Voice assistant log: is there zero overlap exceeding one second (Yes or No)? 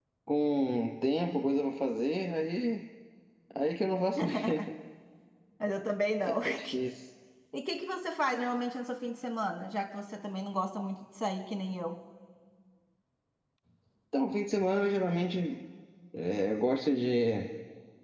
Yes